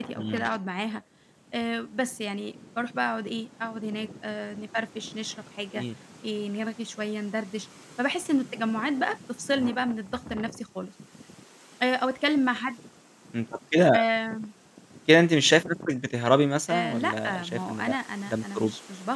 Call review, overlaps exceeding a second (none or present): present